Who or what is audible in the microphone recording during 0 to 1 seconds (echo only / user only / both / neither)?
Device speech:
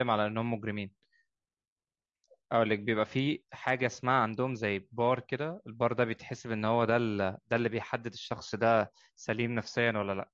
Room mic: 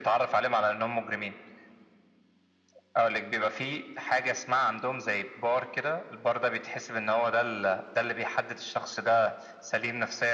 echo only